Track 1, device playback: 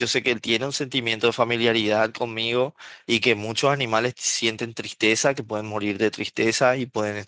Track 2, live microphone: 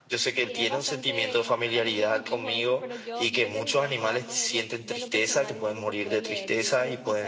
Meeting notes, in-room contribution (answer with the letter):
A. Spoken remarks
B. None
A